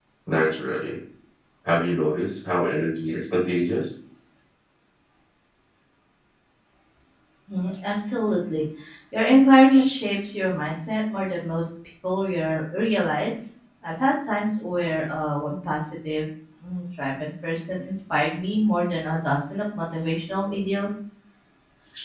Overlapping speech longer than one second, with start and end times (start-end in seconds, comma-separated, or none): none